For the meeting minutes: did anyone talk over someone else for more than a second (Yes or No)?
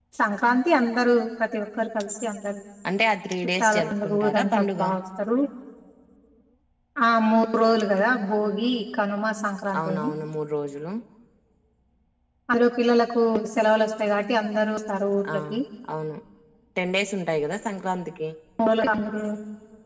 Yes